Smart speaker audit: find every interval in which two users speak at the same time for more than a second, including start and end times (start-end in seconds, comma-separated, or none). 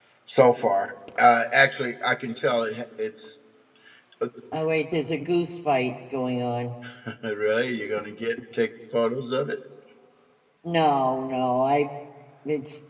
none